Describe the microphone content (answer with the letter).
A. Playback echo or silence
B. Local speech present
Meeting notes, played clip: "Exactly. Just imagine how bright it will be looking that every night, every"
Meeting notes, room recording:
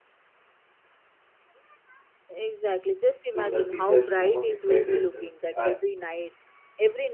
B